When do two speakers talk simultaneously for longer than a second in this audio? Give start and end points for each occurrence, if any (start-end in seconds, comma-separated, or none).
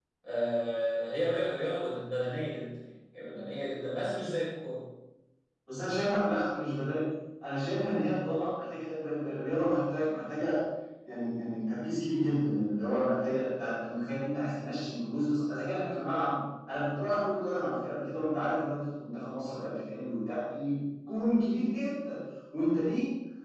none